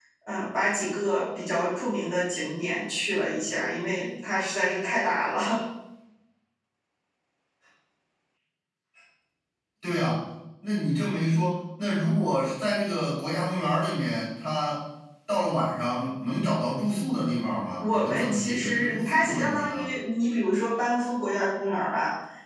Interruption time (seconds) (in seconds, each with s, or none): 17.8 s